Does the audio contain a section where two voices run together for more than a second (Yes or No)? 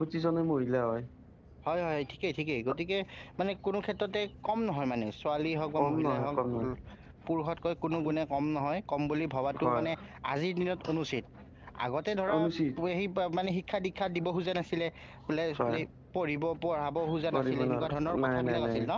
Yes